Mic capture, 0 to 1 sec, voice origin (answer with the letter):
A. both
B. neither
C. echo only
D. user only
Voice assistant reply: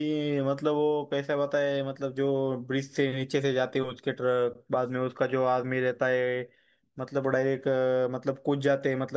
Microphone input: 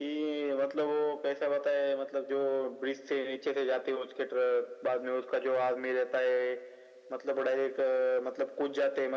C